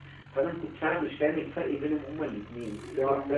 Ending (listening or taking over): taking over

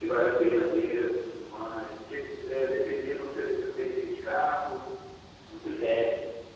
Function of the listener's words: taking over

